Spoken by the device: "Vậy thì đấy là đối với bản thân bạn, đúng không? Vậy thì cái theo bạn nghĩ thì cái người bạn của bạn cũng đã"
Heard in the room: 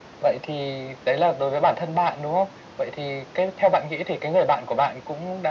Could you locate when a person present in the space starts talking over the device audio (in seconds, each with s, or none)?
none